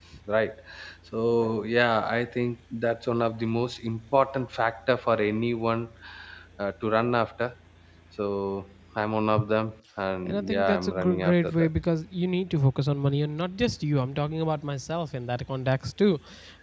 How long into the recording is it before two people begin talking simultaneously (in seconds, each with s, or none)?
10.3 s